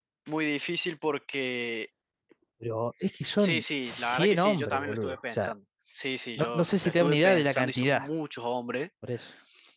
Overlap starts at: 3.4 s

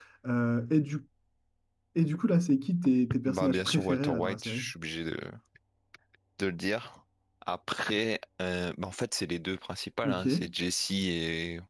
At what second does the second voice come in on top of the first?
3.3 s

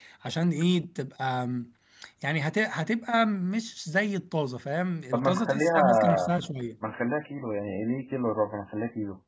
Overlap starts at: 5.1 s

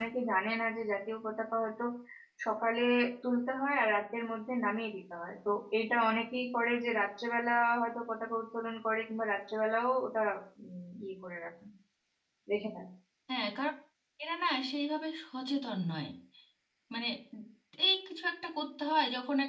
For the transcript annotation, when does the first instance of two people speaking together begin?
none

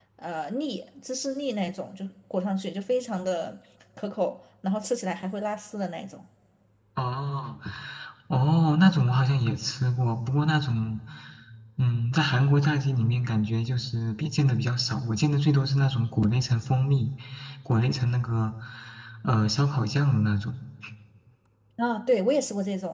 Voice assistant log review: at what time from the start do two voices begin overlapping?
none

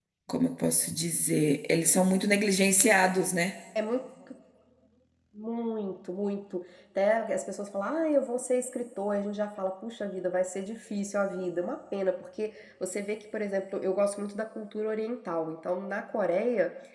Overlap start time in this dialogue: none

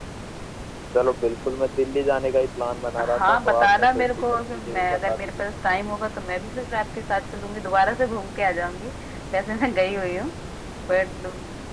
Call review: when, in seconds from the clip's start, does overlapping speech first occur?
3.0 s

